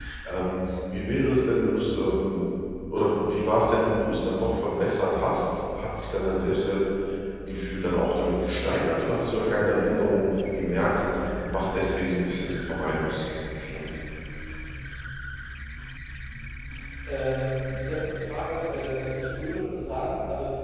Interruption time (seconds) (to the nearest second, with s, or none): none